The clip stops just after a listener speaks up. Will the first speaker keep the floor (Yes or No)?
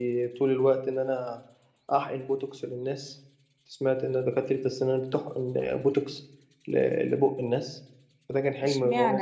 No